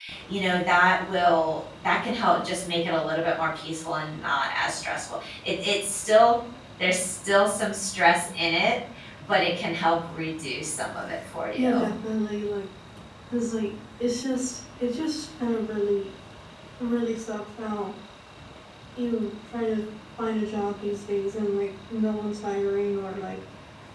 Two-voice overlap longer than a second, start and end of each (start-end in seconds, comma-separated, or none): none